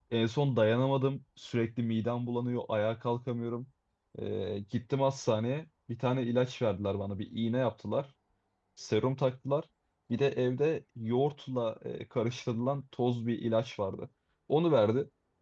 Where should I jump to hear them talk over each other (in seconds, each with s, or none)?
none